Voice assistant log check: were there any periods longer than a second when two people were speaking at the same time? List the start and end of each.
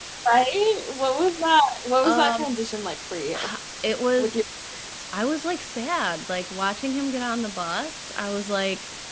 none

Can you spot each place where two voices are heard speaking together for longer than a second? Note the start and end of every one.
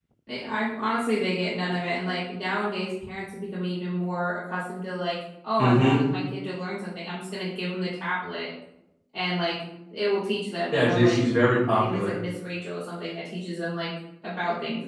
none

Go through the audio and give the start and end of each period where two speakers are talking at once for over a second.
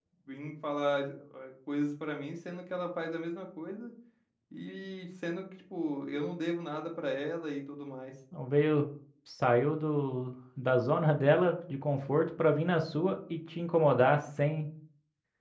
none

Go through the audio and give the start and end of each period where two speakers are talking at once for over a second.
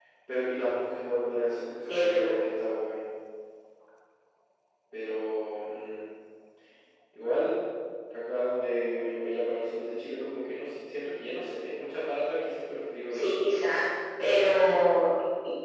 none

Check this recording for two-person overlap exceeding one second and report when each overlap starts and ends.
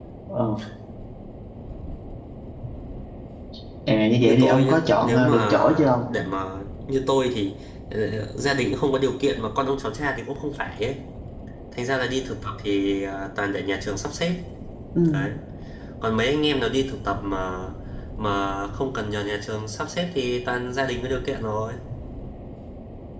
4.2-6.0

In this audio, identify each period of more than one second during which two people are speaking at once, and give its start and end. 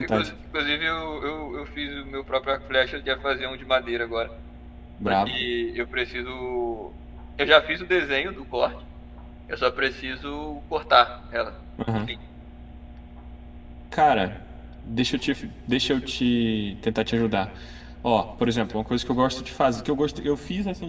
none

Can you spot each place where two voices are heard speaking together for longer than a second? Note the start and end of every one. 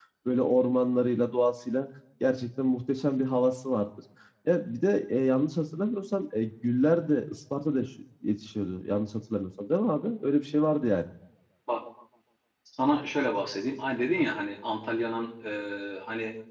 none

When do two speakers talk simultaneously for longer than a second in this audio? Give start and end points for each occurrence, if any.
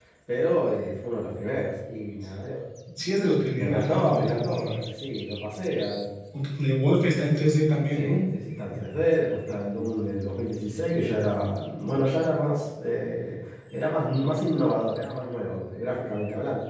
3.6-4.8

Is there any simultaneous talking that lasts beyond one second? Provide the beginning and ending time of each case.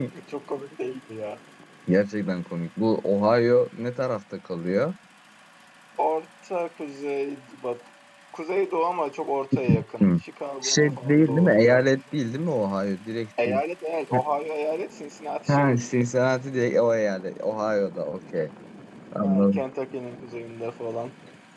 10.6-11.9

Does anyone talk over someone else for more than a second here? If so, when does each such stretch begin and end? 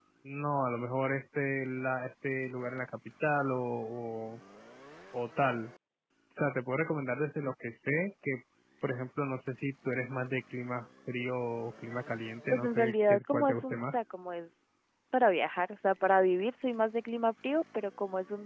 12.5-13.9

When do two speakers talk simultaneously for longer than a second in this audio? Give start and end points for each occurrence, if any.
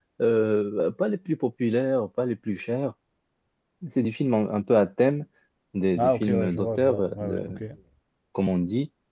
6.0-7.6

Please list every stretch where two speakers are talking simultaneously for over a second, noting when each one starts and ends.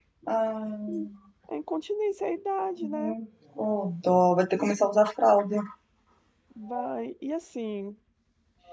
none

